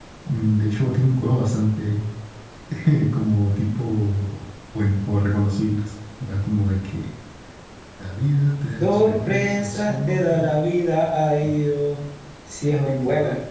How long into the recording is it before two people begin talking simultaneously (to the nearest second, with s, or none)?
9 s